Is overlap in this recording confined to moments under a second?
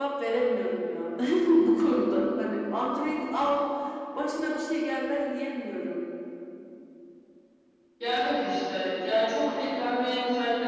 Yes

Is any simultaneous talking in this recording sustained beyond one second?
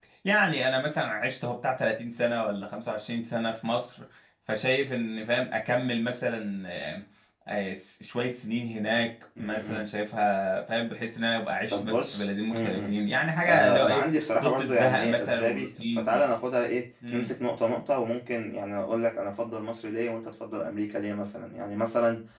Yes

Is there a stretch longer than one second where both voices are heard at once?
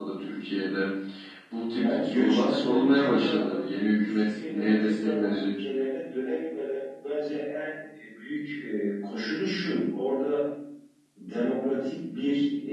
Yes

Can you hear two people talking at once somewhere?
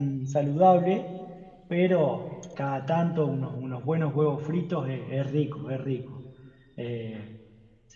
No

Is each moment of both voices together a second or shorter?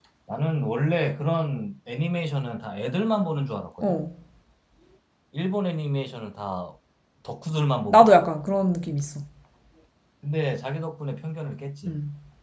Yes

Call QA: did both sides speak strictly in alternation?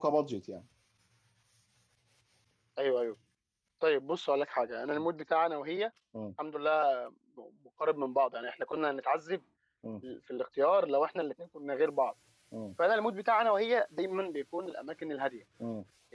Yes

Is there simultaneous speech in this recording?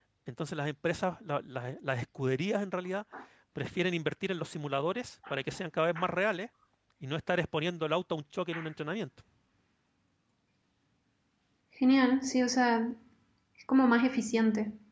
No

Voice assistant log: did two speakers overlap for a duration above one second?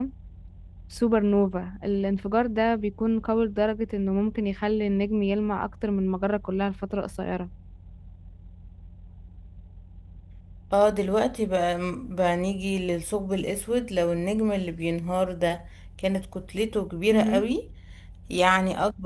No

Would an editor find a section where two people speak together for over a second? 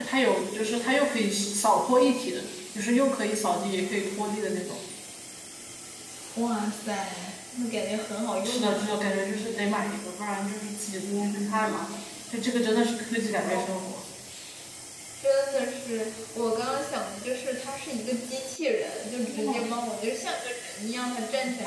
No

